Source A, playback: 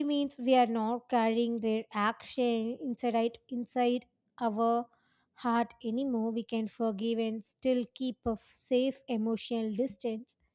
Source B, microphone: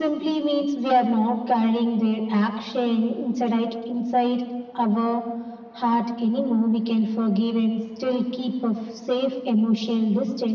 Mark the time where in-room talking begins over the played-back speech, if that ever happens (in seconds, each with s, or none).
none